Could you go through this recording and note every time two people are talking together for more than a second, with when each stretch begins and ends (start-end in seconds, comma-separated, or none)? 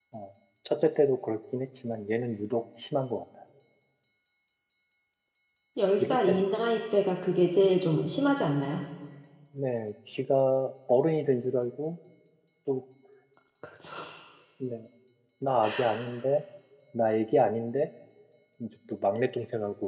none